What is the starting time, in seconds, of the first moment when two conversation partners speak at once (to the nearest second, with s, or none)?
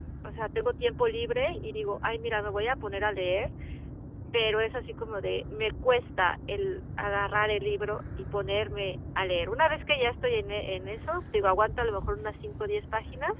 none